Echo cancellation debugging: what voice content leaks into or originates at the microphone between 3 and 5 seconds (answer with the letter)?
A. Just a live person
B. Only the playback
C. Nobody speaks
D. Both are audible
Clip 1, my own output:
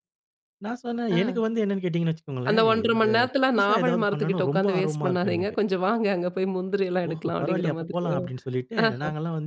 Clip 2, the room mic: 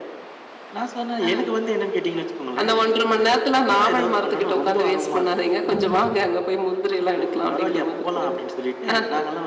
B